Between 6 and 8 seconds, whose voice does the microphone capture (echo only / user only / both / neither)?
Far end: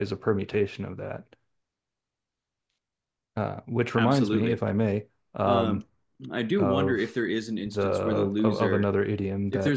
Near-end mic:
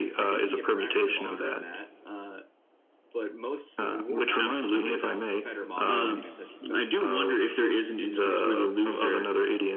both